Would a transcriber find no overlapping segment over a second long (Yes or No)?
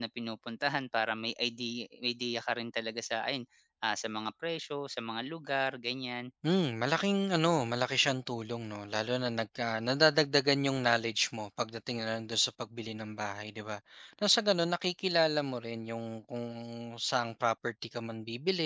Yes